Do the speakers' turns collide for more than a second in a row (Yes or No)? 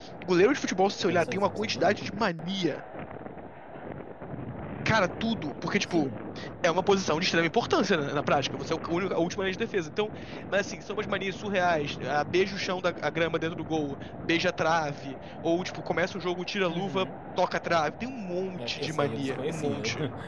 Yes